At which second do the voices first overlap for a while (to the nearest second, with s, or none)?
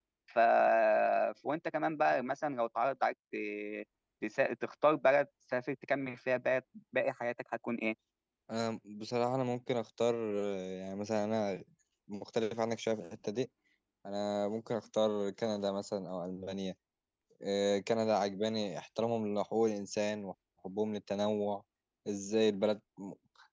none